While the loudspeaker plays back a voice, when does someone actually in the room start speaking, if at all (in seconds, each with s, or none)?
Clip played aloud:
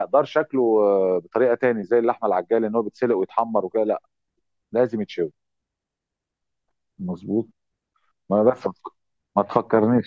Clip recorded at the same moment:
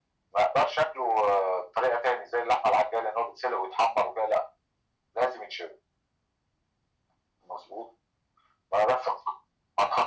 none